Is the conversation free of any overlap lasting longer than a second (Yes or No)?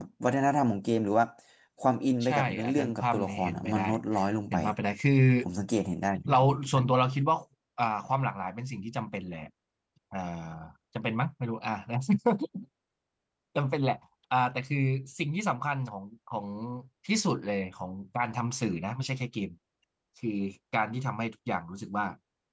No